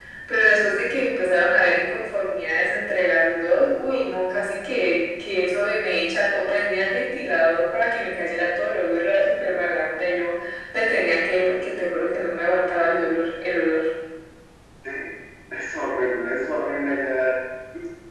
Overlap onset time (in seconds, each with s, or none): none